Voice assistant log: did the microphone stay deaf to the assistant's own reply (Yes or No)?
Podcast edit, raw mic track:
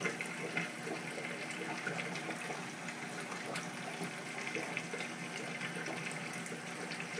Yes